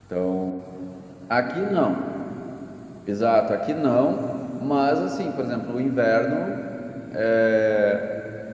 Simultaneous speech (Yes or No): No